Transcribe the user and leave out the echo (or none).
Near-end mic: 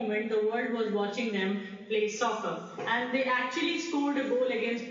none